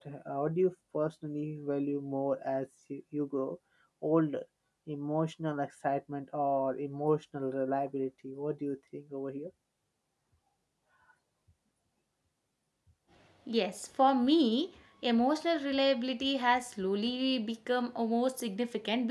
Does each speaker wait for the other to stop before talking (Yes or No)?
Yes